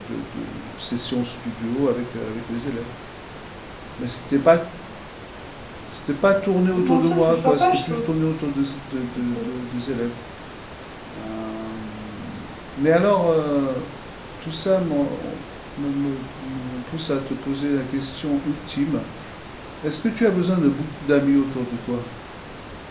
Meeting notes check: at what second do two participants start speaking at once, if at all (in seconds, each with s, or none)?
6.8 s